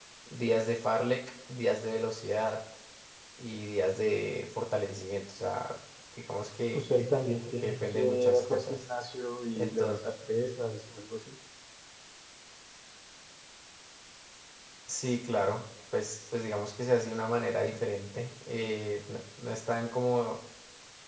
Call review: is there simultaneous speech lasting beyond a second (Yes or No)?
Yes